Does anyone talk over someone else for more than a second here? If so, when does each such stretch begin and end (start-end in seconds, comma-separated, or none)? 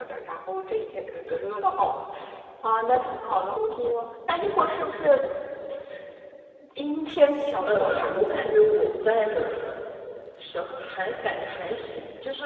none